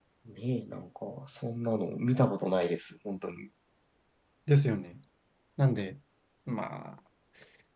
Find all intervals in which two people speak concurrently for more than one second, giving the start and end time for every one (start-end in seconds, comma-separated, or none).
none